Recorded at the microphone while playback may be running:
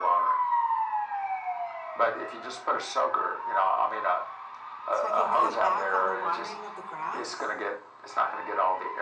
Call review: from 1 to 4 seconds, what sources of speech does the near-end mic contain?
echo only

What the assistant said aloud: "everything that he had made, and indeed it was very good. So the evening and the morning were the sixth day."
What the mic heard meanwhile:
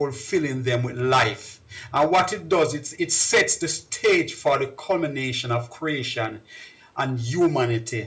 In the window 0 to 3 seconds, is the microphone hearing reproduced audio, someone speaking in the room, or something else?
user only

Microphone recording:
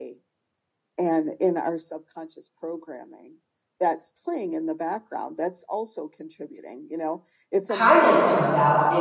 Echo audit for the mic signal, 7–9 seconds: both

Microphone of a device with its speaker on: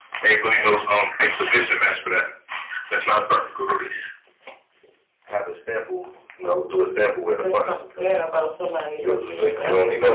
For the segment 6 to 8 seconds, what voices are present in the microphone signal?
both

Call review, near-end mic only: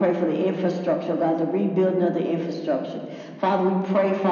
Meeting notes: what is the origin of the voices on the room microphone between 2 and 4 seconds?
echo only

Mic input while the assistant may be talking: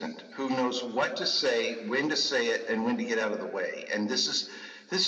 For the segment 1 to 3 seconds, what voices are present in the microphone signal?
echo only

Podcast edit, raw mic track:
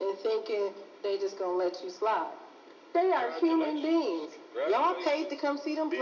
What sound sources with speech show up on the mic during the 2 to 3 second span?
echo only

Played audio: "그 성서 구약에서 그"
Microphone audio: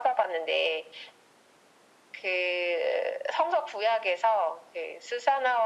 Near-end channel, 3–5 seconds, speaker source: echo only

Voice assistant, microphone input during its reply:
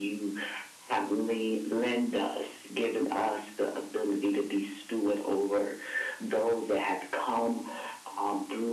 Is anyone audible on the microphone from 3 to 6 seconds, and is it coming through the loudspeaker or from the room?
echo only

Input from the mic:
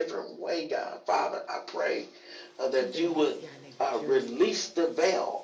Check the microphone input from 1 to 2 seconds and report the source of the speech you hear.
echo only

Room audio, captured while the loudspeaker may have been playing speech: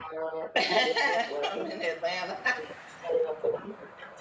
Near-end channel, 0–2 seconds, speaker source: both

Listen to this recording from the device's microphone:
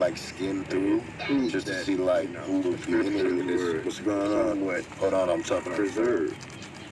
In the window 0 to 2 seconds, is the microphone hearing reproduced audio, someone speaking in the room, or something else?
echo only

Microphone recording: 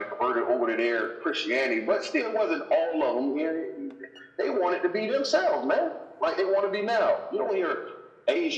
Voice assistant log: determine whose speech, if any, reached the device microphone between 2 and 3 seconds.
echo only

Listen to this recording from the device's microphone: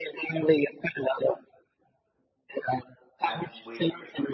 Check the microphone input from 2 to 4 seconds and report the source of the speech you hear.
both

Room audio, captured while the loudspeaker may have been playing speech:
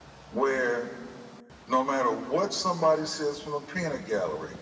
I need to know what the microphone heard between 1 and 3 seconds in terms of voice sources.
echo only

